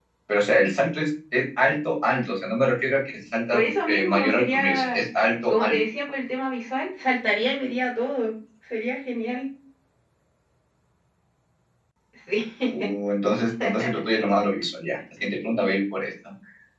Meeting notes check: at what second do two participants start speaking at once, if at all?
4 s

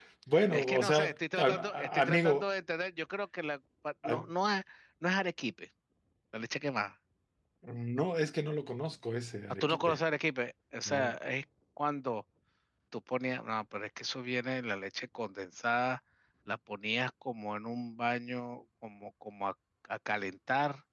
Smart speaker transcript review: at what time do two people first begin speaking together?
1 s

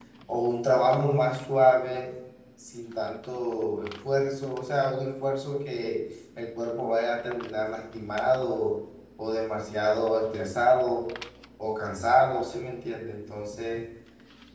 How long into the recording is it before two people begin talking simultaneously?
none

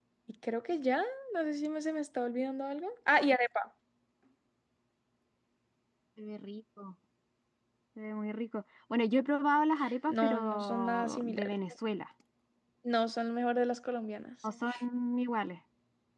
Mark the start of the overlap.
10 s

